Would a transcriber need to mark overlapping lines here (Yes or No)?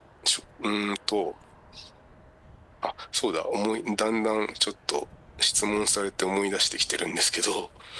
No